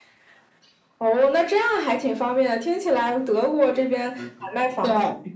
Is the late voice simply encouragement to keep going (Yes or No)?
Yes